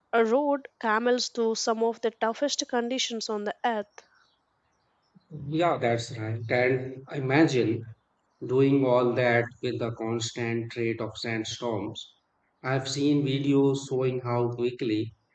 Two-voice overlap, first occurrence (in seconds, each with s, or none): none